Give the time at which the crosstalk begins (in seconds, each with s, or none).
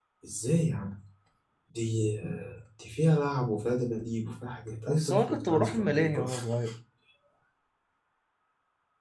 4.9 s